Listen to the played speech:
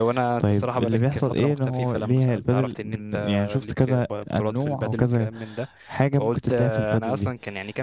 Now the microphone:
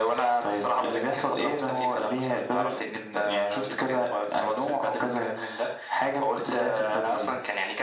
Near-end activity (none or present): none